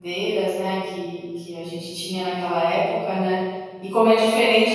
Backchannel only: Yes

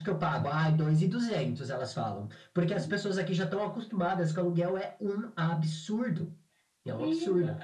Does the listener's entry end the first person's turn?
Yes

